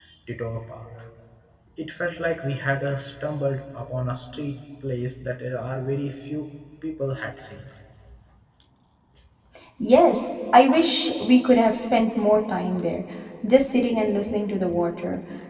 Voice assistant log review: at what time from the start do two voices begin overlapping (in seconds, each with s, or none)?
none